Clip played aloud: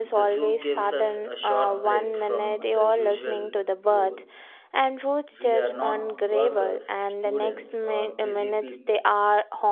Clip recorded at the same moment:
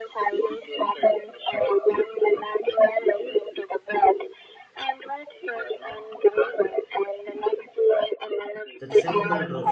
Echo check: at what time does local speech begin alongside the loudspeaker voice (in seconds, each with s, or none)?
8.8 s